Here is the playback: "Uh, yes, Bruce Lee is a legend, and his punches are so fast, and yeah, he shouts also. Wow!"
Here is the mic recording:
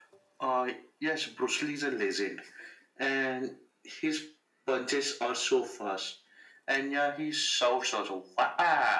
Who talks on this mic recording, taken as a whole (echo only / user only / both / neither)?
echo only